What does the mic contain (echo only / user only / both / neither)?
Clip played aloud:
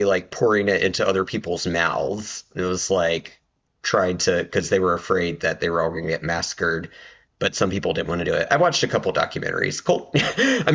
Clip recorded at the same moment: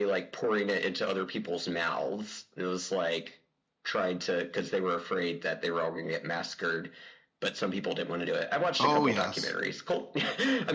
both